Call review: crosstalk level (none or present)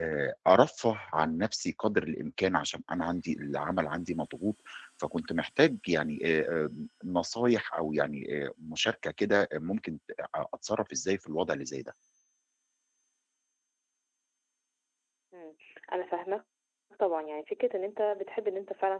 none